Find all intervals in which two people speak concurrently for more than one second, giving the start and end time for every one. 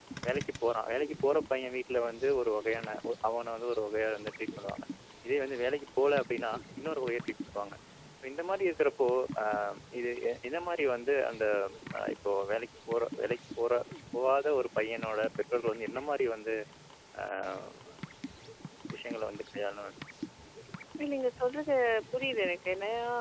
none

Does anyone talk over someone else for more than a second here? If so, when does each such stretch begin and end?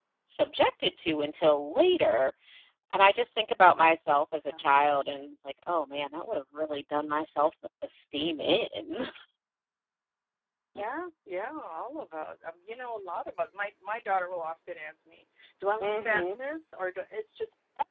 none

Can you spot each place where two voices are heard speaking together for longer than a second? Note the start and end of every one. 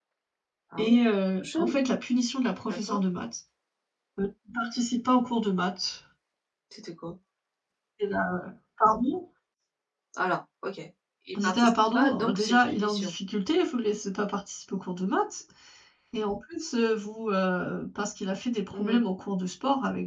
11.4-13.1

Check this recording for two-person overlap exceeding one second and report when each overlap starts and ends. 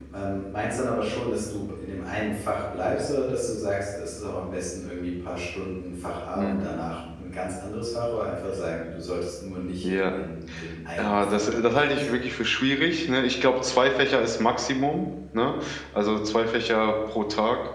11.0-12.2

